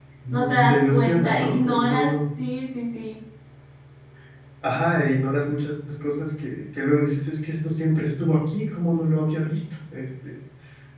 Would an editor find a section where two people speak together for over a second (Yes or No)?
Yes